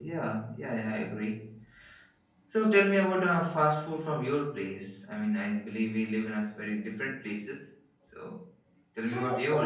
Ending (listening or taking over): taking over